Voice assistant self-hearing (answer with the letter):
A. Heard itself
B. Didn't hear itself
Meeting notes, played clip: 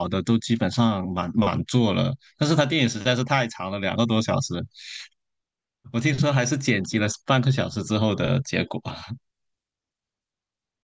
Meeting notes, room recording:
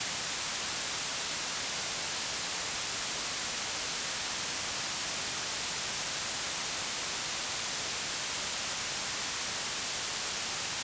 B